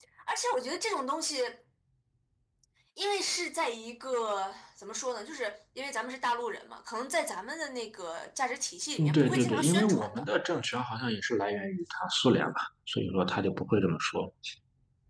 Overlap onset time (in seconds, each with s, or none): 9.0 s